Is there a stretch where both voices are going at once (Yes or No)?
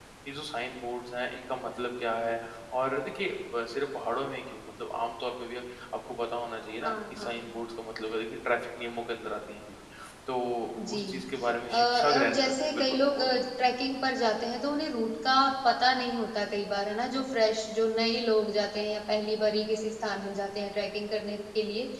Yes